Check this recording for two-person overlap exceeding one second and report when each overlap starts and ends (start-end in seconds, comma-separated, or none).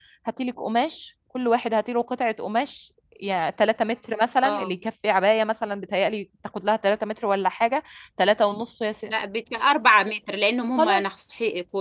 none